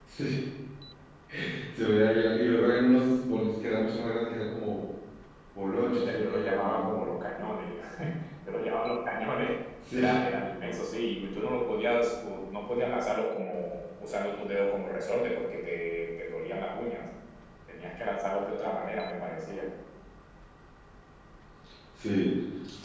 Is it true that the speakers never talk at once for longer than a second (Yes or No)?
No